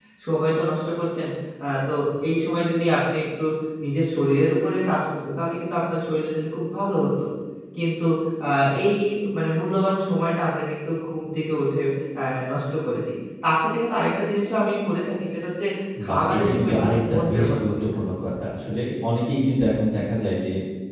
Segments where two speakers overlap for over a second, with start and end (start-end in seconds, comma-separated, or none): 16.1-17.8